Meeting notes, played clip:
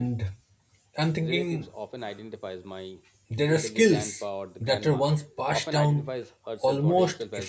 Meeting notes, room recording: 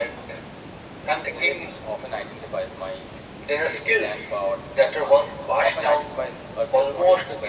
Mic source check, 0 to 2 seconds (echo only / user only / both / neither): echo only